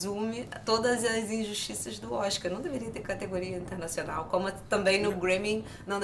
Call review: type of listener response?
listening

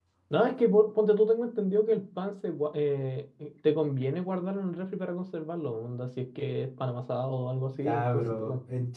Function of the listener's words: taking over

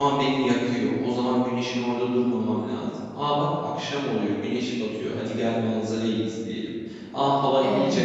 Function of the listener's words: listening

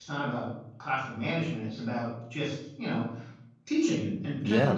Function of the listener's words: listening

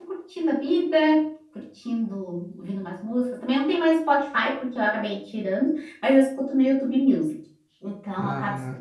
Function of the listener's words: listening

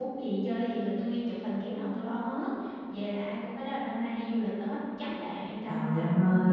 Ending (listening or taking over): taking over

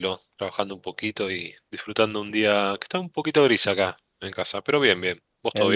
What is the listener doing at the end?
taking over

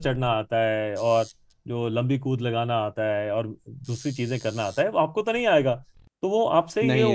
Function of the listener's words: listening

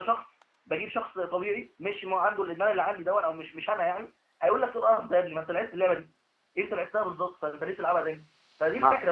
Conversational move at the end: listening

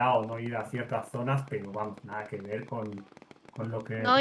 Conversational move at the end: taking over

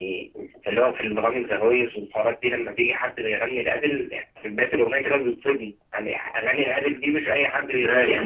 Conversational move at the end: taking over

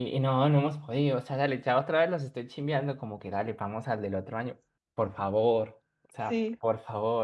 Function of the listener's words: listening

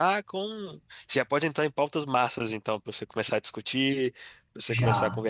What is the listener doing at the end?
listening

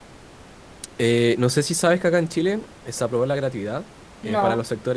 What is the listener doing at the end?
listening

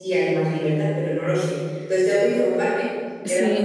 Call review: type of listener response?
taking over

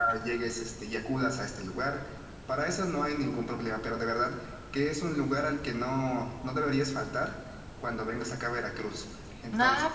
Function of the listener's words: taking over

